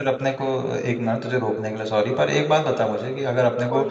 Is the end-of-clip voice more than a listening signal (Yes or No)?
No